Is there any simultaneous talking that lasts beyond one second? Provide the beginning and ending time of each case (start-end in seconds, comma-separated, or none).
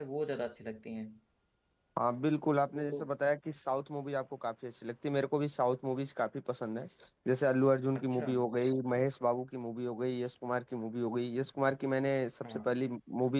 none